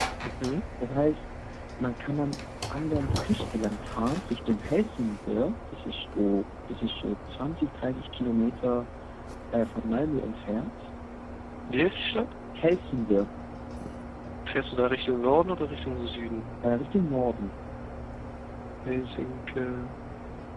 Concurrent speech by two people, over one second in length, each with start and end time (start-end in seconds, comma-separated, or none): none